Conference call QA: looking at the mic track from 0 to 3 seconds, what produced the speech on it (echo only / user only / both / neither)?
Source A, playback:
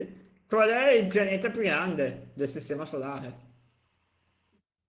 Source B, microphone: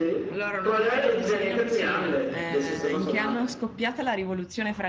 both